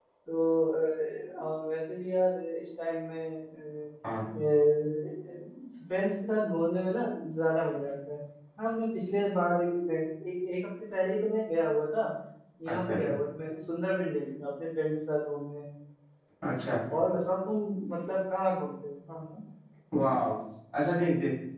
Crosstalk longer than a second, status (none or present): none